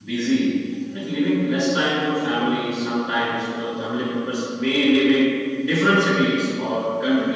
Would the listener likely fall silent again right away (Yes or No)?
Yes